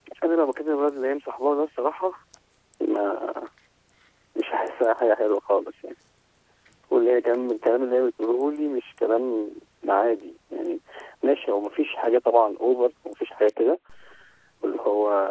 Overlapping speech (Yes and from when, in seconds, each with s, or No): No